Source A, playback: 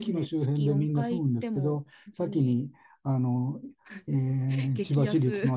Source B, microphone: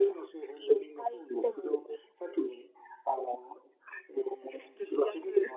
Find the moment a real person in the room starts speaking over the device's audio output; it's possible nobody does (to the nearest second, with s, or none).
none